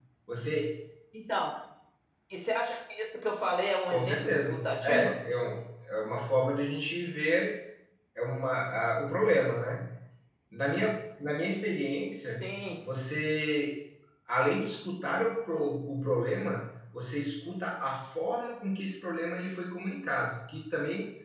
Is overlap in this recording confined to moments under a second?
No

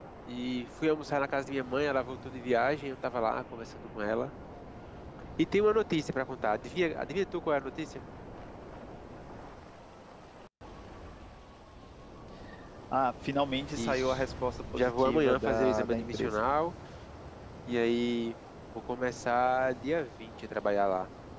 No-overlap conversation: No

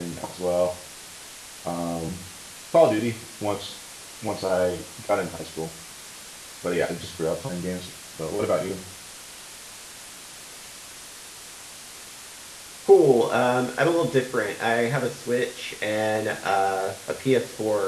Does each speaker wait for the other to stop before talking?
Yes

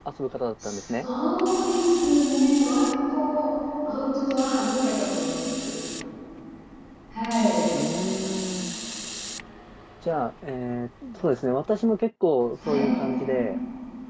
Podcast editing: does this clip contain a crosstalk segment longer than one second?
No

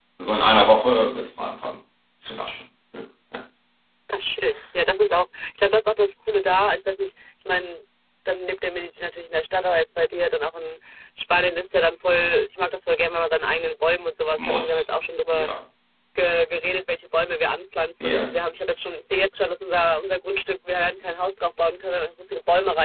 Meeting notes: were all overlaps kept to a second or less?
Yes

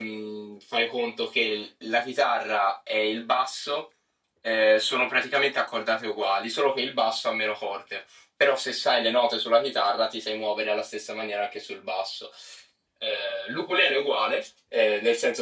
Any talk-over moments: No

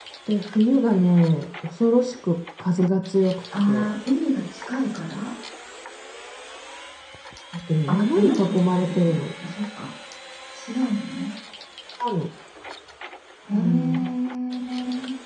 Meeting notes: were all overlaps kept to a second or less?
No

